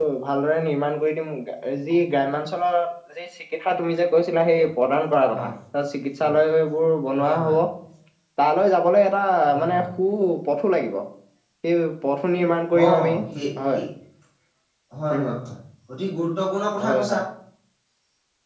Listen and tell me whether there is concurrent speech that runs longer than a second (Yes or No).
No